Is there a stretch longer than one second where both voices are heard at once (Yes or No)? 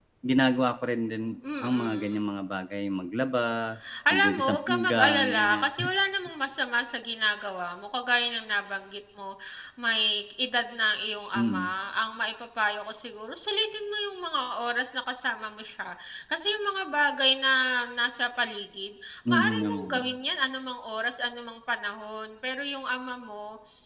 Yes